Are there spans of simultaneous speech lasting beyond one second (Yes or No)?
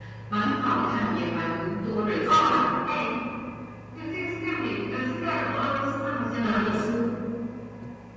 No